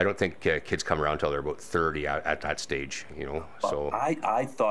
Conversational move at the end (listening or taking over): taking over